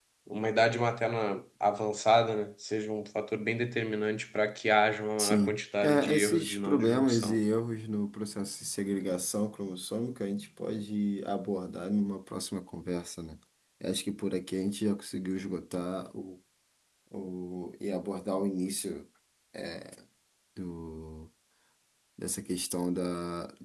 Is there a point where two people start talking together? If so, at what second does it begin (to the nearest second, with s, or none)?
5 s